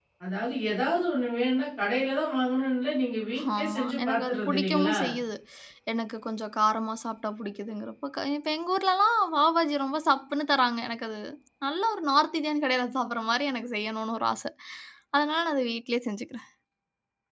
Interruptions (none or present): present